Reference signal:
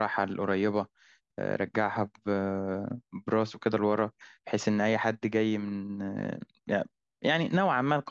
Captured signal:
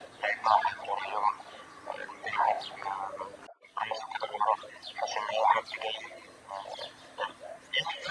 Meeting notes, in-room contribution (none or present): none